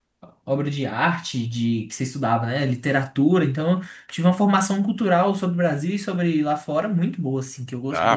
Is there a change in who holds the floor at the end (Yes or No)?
Yes